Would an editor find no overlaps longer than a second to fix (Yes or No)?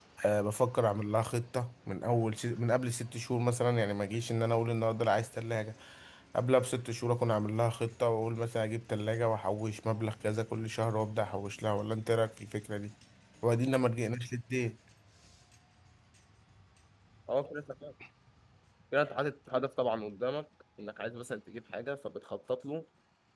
Yes